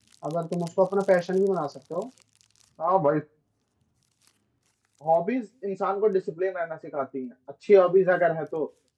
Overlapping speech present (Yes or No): No